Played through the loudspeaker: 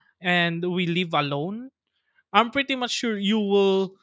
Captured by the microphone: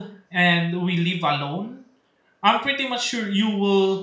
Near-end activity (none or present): none